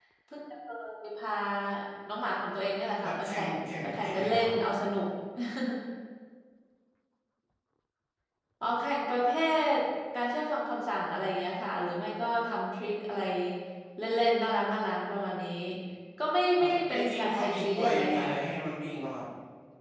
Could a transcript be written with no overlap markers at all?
No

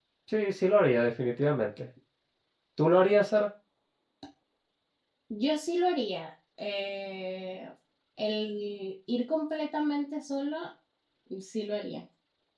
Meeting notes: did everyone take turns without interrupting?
Yes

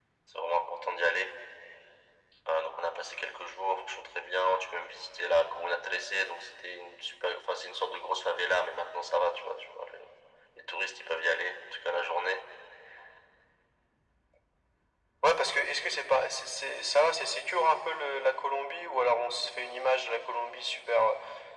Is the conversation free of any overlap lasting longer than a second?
Yes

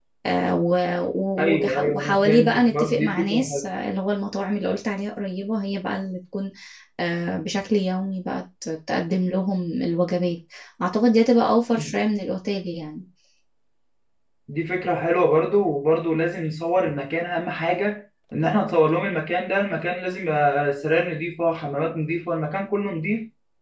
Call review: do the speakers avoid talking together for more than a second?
No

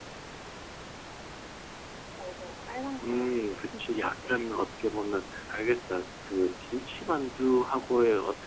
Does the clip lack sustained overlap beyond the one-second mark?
No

